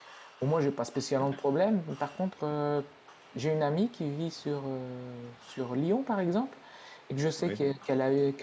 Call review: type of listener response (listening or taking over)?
listening